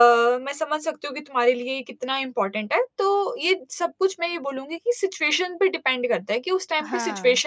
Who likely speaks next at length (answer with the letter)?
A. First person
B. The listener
A